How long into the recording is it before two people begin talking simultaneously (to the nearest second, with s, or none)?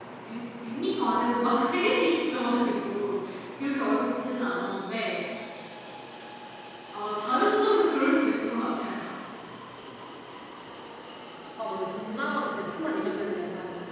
none